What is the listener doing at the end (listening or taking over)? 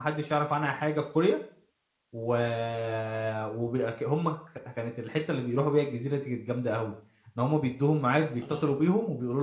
listening